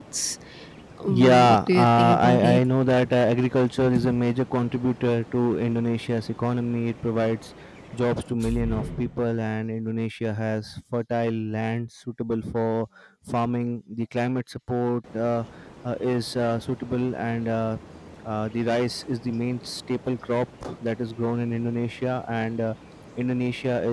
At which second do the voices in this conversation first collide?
1 s

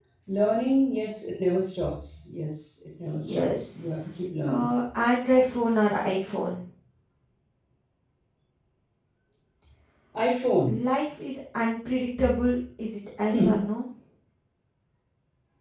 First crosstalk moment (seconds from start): 3 s

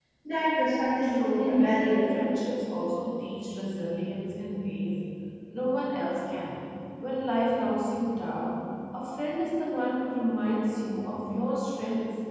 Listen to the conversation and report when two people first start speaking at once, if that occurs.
1 s

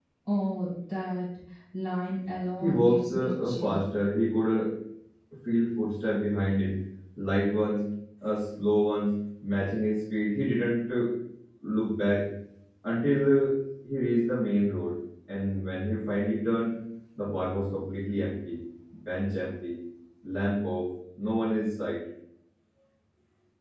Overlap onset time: 3 s

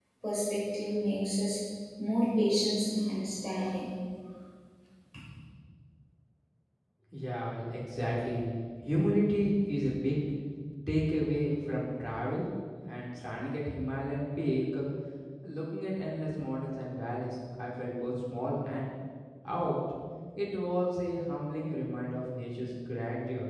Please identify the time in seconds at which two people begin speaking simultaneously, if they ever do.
none

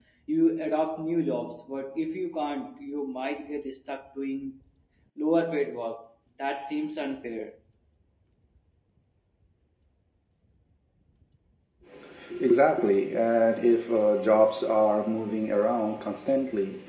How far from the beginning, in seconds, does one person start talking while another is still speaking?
none

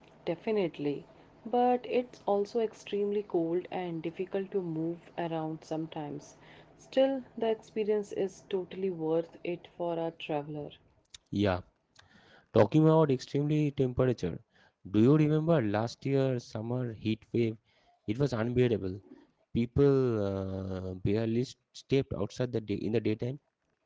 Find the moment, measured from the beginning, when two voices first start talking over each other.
none

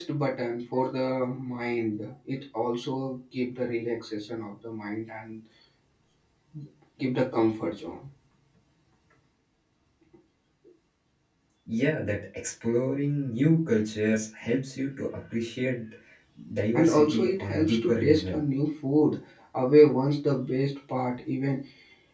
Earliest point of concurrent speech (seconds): 17 s

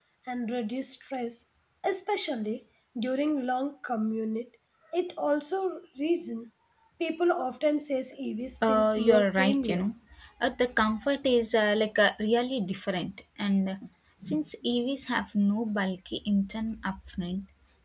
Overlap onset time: 9 s

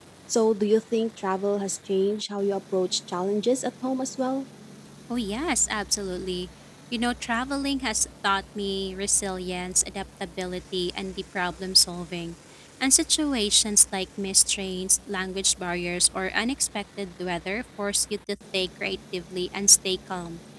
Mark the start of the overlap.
none

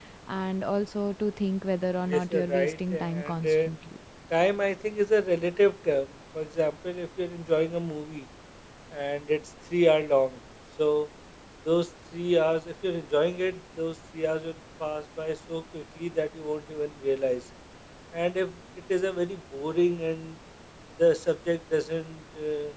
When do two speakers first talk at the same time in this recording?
2 s

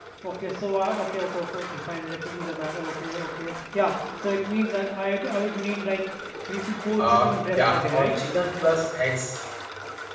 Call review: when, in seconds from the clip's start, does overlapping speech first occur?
7 s

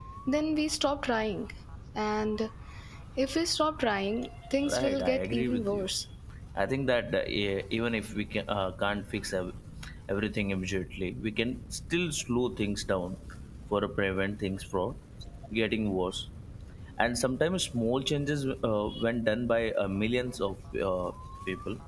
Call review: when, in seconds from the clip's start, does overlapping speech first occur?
5 s

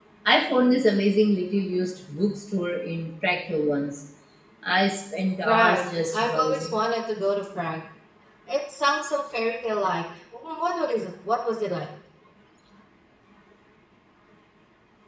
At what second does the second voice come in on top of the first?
5 s

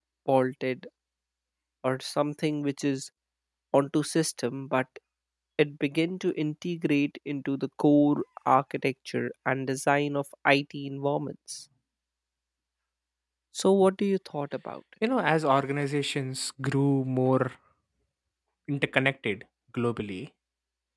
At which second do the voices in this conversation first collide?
none

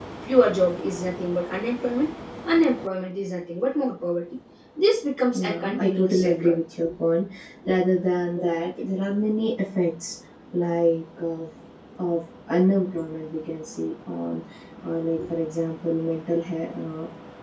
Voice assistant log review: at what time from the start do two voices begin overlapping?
5 s

